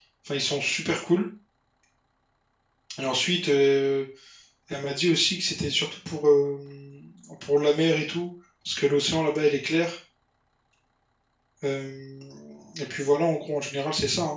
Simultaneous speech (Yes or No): No